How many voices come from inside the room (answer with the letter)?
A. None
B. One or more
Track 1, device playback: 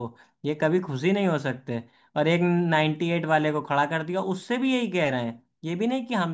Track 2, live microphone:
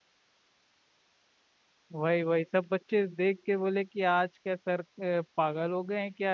B